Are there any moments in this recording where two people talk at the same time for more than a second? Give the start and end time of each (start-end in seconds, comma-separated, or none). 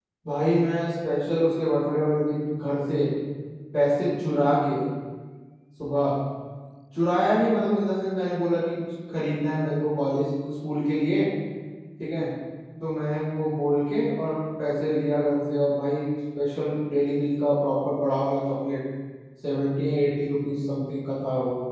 none